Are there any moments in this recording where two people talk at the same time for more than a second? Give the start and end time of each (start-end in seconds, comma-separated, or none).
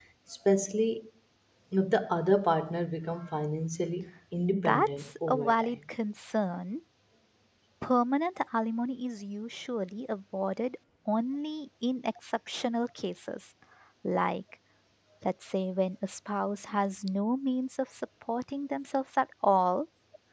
4.5-5.8